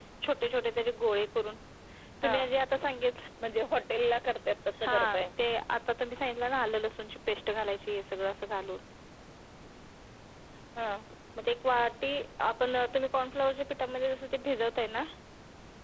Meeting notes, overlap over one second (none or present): none